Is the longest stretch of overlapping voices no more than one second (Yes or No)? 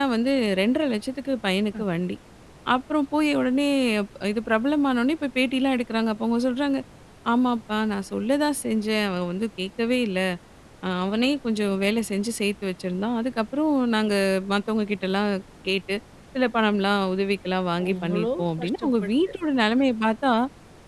No